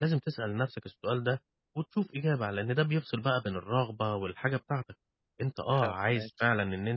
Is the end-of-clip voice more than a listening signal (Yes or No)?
No